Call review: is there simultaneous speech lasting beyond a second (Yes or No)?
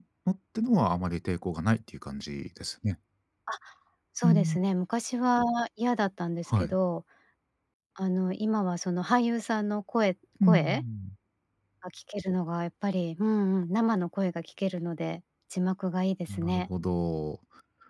No